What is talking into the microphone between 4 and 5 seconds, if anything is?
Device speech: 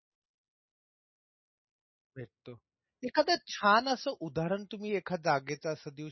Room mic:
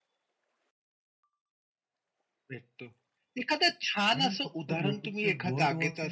both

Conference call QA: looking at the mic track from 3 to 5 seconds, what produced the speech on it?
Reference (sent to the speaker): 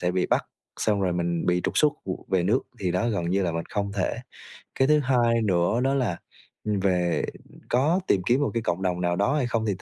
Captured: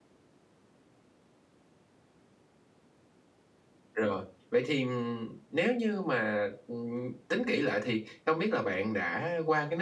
user only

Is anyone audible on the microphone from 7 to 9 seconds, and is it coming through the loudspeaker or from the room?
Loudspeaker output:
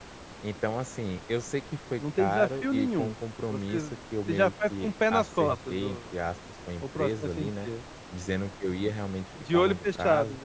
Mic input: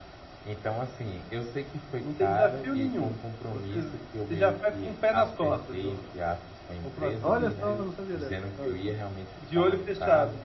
both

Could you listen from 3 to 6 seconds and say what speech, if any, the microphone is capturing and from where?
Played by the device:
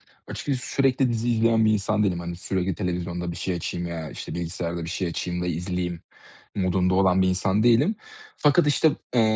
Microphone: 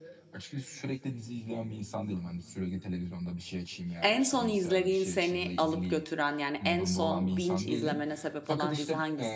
both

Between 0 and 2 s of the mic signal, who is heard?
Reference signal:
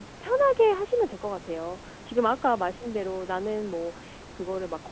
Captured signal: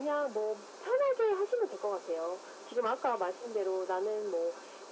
echo only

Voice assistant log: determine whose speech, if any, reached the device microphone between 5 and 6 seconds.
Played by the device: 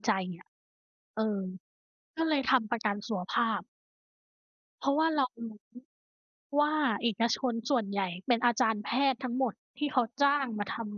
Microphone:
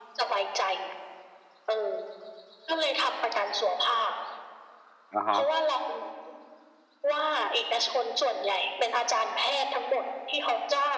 both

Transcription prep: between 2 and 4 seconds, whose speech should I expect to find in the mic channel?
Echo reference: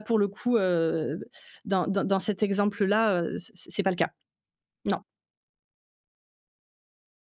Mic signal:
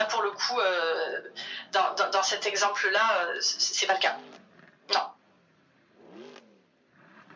echo only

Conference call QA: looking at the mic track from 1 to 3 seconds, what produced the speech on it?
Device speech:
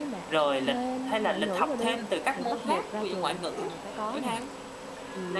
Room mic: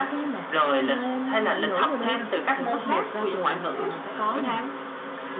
echo only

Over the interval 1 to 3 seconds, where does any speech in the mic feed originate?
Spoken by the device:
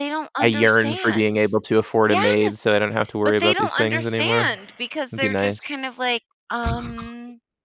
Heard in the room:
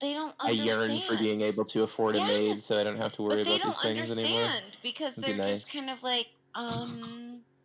echo only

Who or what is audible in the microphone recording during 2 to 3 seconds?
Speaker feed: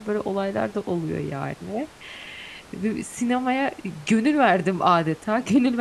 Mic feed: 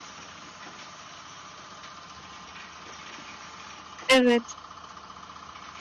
neither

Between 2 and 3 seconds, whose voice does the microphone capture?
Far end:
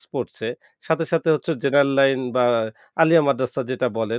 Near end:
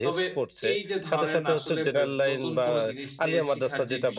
both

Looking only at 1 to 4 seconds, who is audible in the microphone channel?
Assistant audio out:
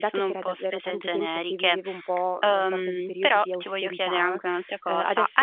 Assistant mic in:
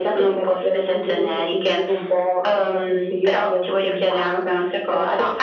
echo only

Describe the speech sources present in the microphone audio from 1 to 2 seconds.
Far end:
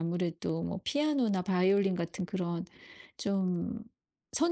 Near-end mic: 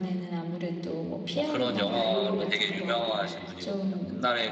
both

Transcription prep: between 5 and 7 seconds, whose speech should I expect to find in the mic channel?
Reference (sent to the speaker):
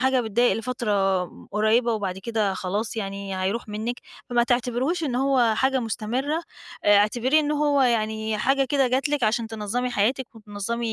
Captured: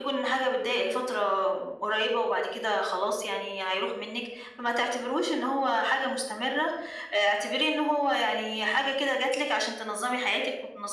echo only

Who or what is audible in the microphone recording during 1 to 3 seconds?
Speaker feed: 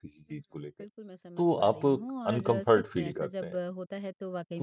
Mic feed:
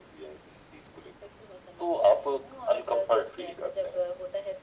echo only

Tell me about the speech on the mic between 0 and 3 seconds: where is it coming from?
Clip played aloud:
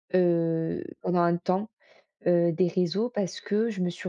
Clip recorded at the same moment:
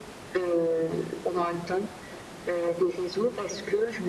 echo only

